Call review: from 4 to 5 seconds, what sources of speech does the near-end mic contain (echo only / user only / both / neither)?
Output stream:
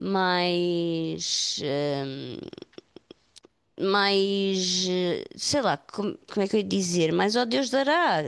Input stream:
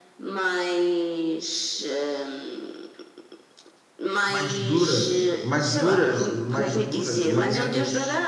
both